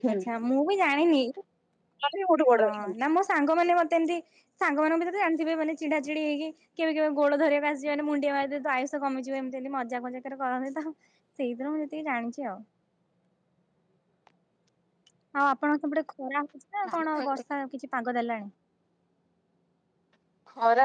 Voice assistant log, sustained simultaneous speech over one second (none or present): none